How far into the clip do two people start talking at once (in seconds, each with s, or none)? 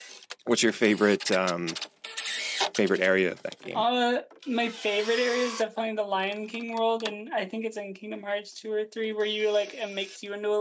none